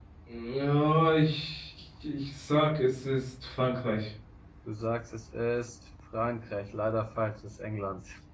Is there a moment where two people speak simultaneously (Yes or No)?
No